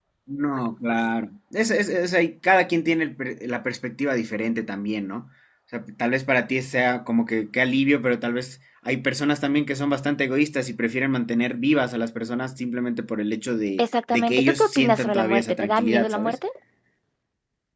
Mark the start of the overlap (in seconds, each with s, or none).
13.8 s